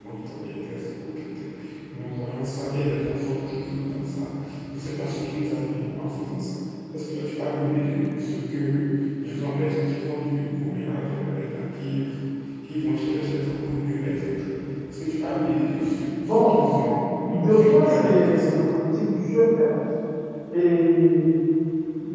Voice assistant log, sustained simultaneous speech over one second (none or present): present